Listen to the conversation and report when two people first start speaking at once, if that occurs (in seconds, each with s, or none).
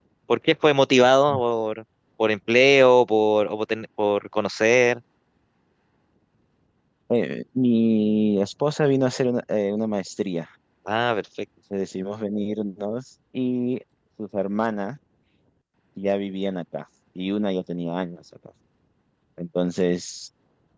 none